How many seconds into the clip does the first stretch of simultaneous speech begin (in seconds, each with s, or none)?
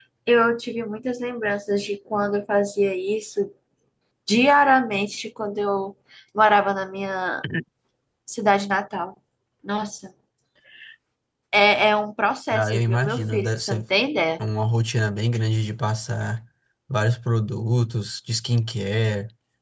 12.5 s